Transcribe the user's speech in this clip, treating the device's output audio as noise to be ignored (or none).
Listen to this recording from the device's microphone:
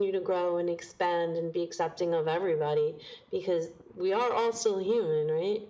none